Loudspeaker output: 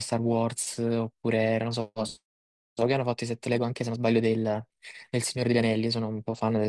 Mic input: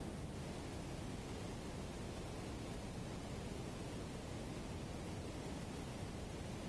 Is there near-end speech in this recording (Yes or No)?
No